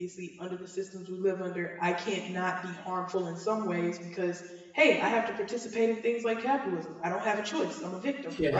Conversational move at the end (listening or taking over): listening